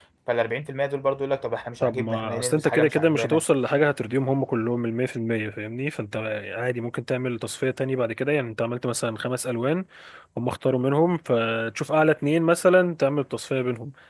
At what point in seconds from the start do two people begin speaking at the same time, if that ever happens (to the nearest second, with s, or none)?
2 s